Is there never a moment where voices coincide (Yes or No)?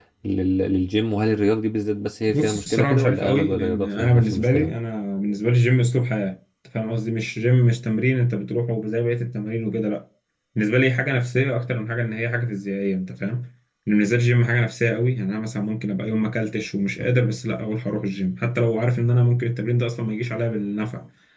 No